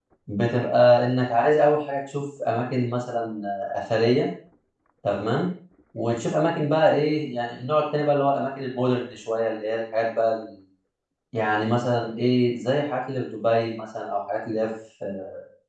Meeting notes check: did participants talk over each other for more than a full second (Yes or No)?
No